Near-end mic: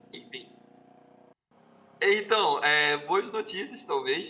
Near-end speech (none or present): present